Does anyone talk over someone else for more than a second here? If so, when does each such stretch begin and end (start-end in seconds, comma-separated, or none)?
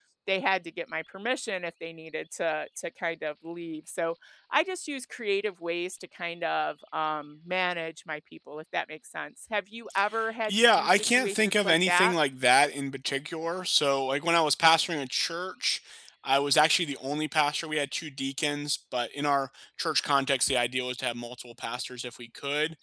10.5-12.1